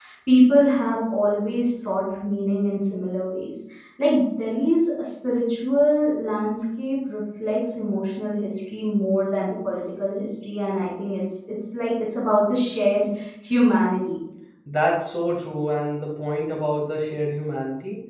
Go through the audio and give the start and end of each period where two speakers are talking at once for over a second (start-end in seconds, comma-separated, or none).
none